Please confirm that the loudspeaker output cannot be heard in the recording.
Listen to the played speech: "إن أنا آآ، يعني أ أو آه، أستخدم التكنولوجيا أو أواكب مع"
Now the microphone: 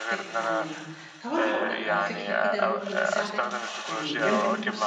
No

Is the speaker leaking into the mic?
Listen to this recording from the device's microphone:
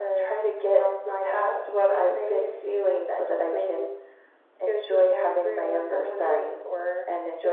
Yes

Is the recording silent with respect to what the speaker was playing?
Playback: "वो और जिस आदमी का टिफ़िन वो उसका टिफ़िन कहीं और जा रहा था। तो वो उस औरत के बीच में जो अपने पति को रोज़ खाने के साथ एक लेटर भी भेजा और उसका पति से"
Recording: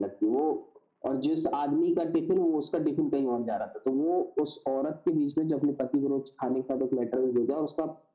No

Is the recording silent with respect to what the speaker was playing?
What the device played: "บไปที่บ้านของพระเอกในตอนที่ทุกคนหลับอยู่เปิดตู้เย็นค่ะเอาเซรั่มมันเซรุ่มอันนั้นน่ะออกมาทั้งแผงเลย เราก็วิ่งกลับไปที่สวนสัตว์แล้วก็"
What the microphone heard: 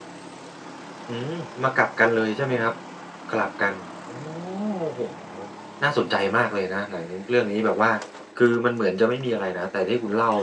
Yes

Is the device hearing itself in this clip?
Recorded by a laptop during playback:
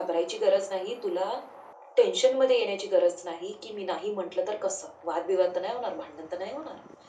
Yes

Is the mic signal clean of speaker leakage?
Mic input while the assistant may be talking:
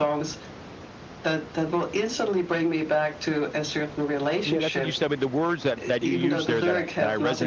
No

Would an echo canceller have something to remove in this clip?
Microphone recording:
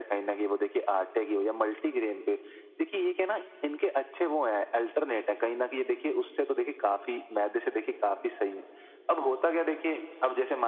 Yes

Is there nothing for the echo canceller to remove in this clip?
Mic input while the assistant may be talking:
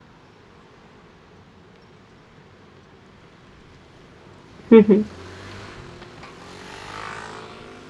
Yes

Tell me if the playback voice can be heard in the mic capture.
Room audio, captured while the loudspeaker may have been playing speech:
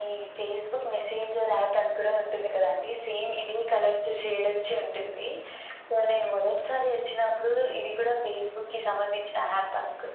Yes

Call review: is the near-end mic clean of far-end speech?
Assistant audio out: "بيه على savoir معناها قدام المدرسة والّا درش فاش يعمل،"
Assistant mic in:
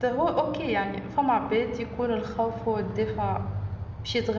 Yes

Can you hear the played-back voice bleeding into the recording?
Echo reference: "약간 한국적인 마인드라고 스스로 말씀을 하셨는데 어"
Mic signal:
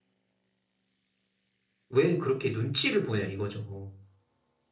No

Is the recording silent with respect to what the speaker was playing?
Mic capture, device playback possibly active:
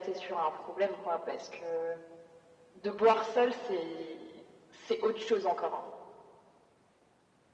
No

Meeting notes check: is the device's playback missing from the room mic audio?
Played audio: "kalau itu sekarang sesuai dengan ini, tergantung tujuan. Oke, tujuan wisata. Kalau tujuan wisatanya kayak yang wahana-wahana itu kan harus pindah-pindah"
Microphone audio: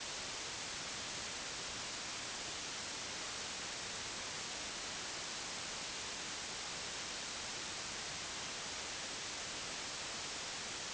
Yes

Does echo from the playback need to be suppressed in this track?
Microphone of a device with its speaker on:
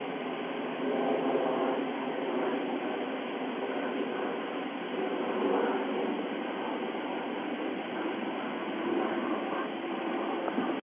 No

